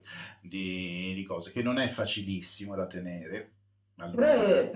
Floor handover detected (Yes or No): Yes